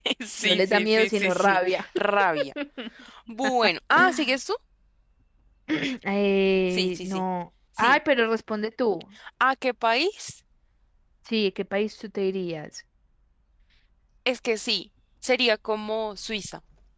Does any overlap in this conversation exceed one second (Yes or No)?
Yes